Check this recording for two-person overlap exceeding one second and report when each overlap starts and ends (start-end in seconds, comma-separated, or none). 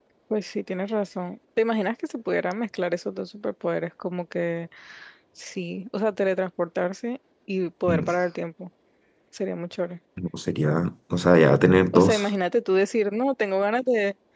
none